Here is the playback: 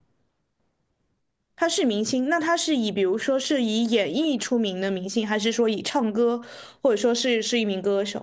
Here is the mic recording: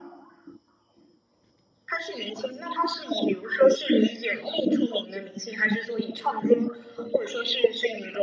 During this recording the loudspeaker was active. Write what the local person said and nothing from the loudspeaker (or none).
none